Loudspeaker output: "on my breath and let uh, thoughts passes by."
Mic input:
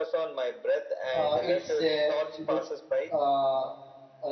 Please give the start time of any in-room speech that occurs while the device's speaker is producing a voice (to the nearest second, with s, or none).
1 s